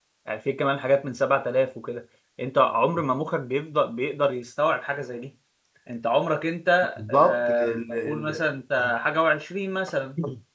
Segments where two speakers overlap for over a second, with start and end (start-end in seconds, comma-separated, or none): 7.0-8.4